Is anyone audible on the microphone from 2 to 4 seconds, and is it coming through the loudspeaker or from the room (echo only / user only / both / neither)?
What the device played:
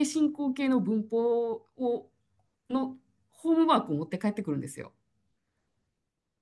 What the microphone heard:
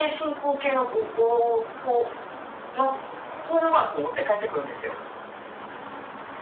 echo only